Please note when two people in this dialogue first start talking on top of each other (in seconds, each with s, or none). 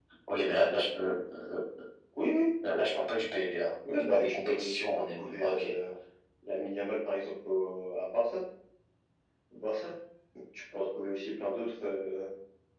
3.9 s